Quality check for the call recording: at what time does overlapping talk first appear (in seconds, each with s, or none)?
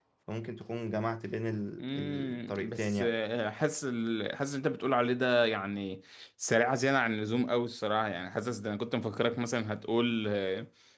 1.8 s